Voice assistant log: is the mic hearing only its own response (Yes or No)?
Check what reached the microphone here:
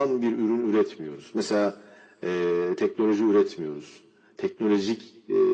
Yes